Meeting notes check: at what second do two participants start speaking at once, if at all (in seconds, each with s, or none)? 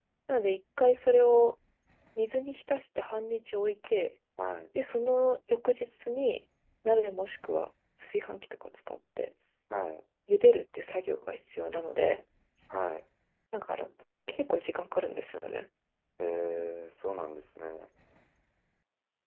none